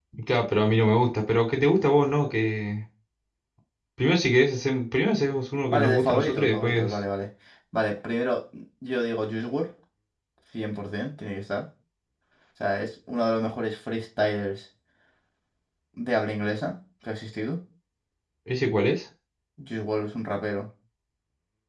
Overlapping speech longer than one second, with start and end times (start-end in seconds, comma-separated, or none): 5.7-6.9